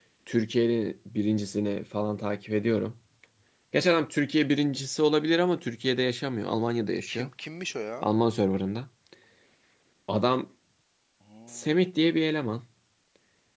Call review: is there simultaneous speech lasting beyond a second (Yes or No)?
No